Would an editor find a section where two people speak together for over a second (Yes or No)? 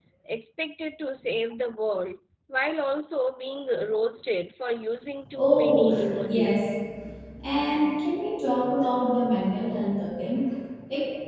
Yes